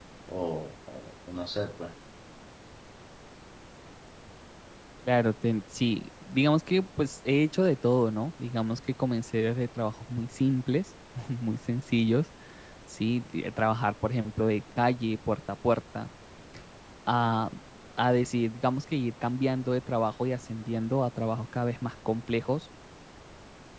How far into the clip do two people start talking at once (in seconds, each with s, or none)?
none